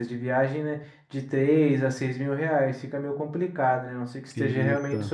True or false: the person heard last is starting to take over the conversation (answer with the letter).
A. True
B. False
B